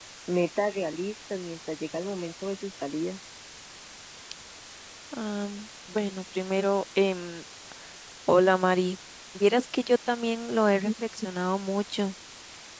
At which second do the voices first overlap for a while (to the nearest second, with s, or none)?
none